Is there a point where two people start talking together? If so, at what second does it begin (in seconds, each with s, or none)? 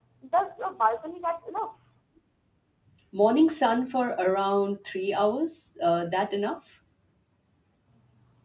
none